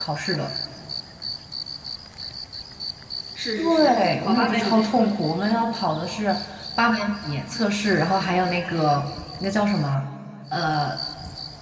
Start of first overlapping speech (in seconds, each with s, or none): 3.6 s